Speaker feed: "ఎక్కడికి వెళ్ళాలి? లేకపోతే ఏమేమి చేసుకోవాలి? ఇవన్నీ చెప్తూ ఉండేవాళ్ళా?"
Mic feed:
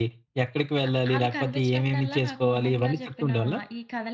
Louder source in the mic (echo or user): echo